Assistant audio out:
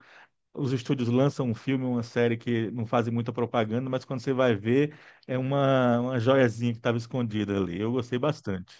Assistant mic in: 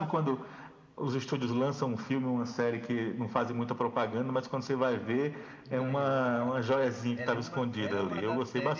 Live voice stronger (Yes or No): No